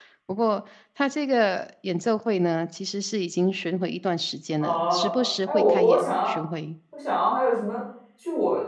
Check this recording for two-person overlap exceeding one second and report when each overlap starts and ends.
4.6-6.3

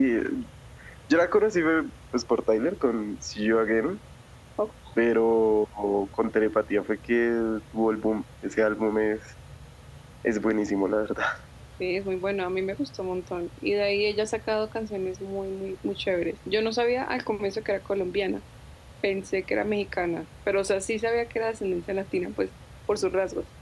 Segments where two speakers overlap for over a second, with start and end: none

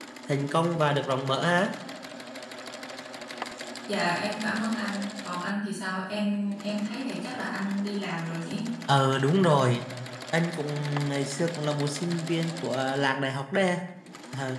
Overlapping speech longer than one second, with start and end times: none

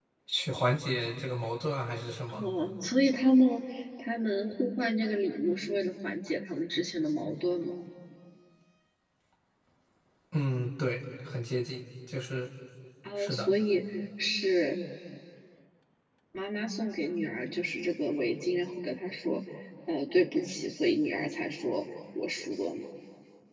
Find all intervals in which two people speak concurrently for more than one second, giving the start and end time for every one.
none

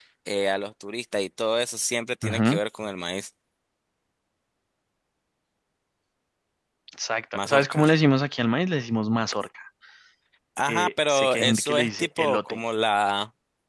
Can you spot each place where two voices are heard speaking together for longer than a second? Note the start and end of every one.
10.7-12.6

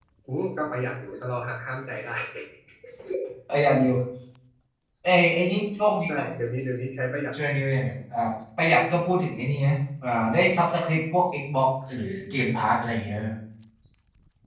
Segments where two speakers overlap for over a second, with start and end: none

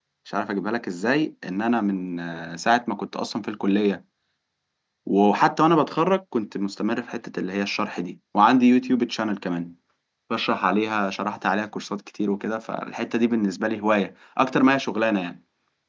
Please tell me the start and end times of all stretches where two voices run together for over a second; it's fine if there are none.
none

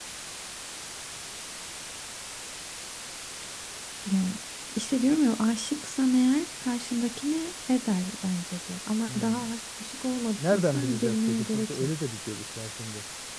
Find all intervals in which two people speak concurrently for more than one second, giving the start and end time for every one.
10.4-11.9

